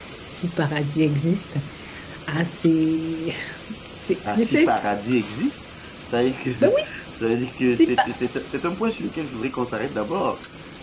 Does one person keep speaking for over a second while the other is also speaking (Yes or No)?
No